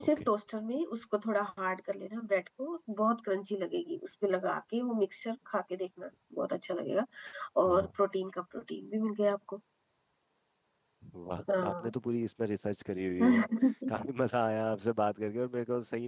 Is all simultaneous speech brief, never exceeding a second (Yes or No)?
Yes